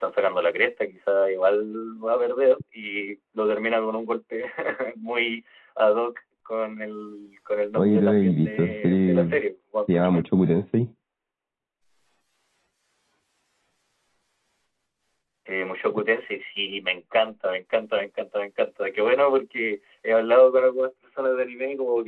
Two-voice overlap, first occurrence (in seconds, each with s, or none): 7.8 s